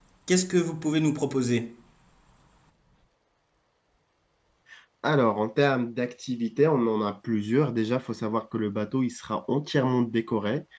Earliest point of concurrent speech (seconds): none

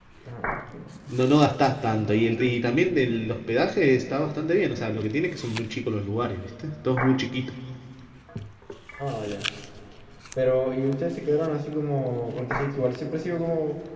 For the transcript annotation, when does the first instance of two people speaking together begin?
none

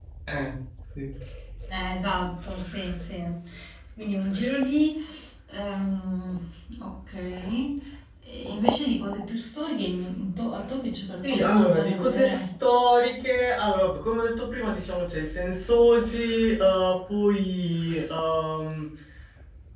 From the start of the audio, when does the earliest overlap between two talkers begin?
11 s

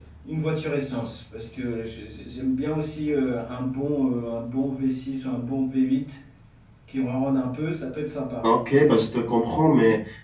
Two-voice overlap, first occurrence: none

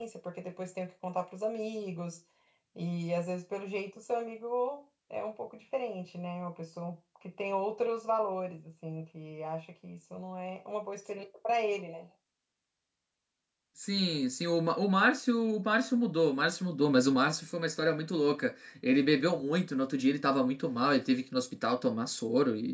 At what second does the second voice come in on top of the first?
none

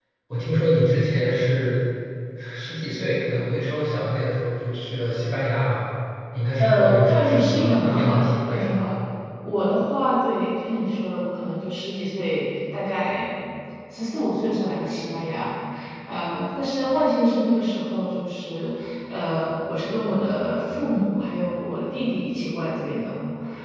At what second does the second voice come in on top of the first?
7 s

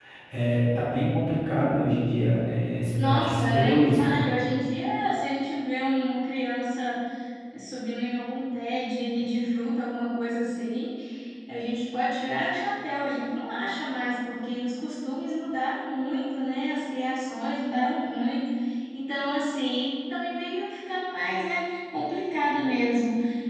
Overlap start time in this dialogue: 3 s

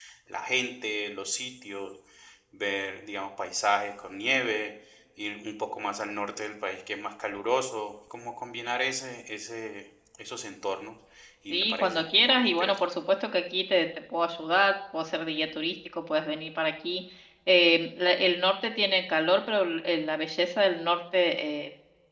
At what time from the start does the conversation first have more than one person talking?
12 s

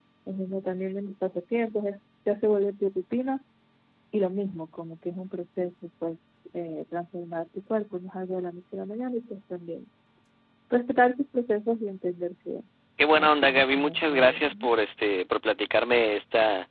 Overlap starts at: 13 s

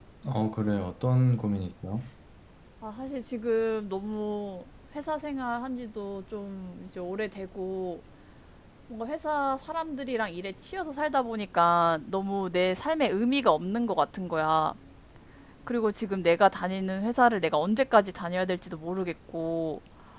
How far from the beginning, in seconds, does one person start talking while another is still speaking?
none

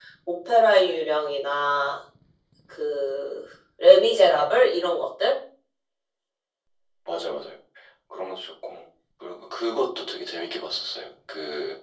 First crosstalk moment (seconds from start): none

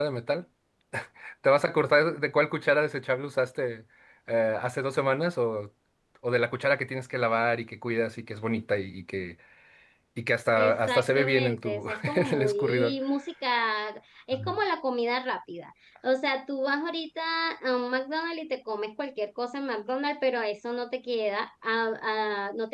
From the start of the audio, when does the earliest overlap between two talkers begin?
11 s

